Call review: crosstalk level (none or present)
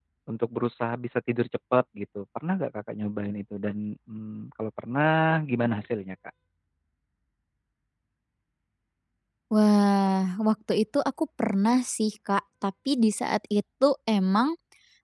none